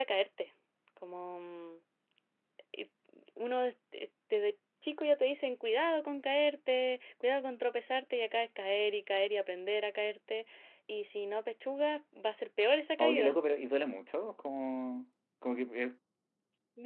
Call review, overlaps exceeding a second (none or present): none